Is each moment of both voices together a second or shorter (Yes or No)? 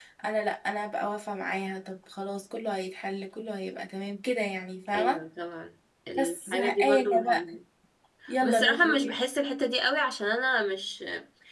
No